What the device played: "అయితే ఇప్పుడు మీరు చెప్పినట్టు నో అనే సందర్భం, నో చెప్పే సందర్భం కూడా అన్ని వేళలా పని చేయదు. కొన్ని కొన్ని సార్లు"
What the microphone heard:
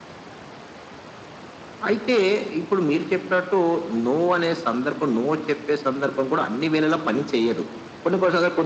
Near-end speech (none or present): none